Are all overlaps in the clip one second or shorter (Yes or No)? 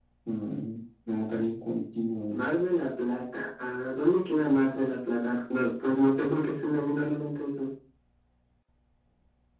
Yes